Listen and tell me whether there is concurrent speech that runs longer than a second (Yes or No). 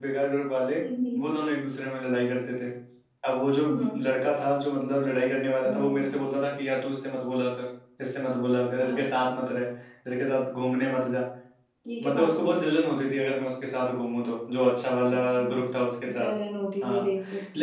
No